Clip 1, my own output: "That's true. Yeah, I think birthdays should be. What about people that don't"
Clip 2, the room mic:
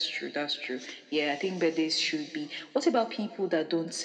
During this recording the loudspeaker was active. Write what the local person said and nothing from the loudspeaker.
none

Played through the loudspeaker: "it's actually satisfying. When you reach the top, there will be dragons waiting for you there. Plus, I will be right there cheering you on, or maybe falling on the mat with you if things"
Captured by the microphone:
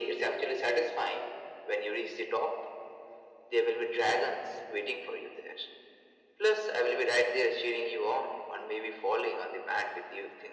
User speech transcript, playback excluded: none

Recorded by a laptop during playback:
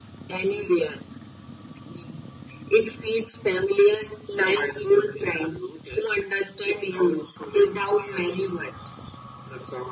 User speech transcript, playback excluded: none

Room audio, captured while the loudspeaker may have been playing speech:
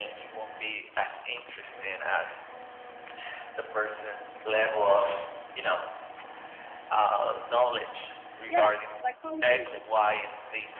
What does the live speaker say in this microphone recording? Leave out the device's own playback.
Yes, like Paulo Coelho.

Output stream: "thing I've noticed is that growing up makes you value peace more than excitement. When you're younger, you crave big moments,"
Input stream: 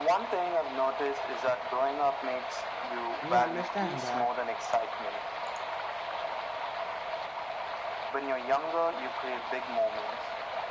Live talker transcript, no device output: You understand that

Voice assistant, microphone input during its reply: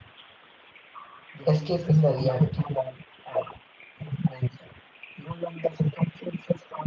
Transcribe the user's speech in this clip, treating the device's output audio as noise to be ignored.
escaping the reality,

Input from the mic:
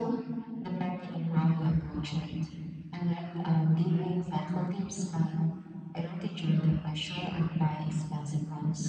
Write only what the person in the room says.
none

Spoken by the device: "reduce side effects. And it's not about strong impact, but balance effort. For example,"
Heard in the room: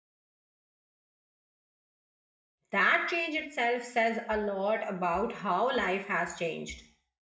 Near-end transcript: That change itself says a lot about how life has changed.

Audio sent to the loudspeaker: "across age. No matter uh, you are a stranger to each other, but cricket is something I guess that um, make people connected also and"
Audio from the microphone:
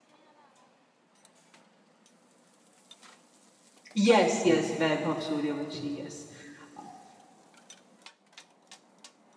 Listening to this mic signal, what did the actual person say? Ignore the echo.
yes, yes, Vaibhav Suryavanshi. Yes, Uh,

